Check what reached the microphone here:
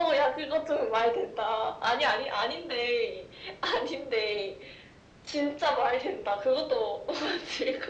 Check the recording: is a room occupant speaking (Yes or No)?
No